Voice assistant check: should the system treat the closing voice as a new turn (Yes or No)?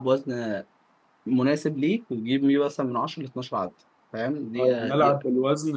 Yes